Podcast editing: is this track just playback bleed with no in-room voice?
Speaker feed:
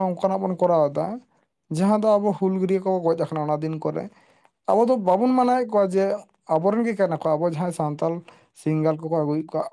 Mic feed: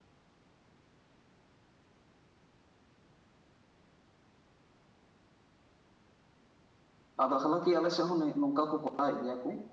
No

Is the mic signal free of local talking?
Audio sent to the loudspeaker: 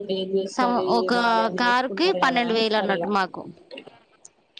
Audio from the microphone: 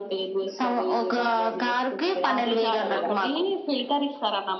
No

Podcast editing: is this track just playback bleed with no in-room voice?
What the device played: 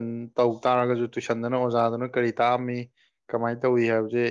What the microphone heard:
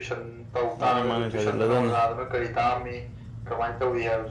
No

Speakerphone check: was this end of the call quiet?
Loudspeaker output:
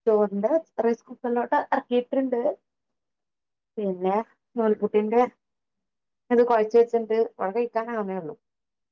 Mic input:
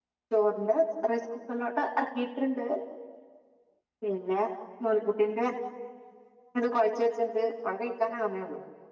Yes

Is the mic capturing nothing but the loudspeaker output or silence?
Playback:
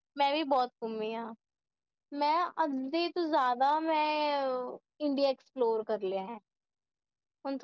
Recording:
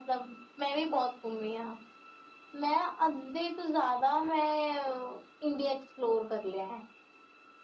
Yes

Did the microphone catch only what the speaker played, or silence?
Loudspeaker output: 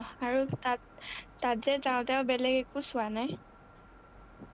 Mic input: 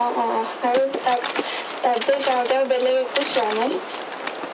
Yes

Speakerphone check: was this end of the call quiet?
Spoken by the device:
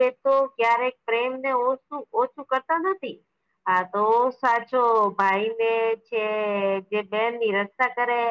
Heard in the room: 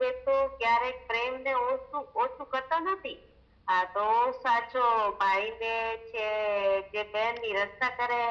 Yes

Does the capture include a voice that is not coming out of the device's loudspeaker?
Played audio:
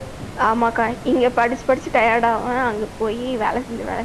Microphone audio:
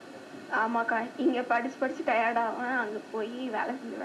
No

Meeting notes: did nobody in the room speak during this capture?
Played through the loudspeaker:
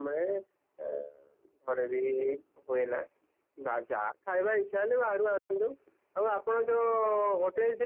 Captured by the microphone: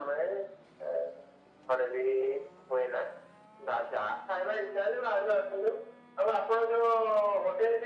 Yes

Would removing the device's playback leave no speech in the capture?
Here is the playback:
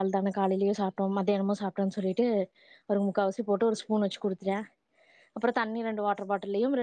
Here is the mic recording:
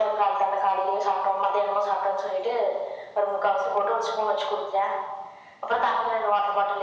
Yes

